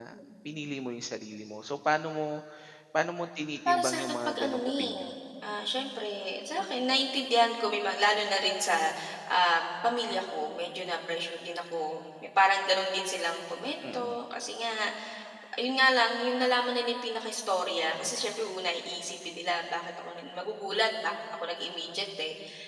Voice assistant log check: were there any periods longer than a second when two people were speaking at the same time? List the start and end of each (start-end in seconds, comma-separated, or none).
3.4-5.1